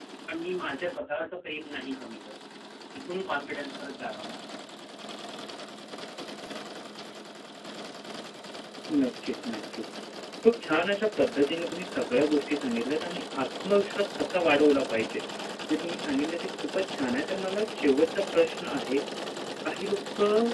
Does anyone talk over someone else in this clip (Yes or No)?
No